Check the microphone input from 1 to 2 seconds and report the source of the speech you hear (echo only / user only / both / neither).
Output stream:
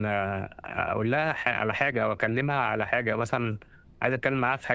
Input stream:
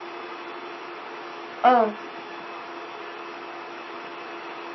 user only